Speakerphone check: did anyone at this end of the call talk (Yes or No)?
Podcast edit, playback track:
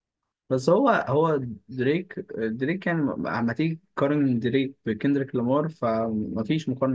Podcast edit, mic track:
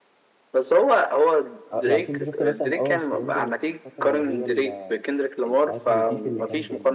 Yes